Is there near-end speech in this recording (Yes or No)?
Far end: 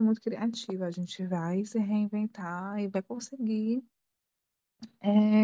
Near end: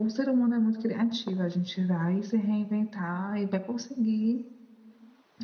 No